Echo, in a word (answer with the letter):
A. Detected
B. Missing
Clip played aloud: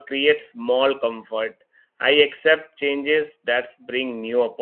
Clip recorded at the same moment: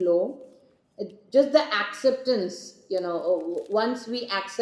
B